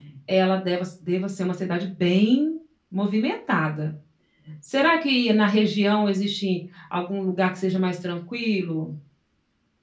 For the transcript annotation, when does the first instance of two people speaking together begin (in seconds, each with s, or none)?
none